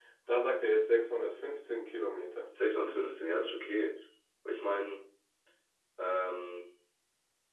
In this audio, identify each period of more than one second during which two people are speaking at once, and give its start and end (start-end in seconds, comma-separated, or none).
none